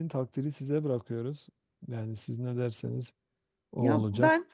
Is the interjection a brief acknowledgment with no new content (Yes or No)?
No